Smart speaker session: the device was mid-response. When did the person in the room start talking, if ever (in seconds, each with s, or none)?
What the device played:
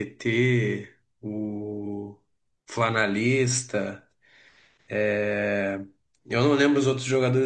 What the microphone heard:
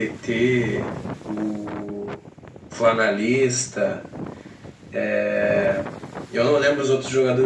none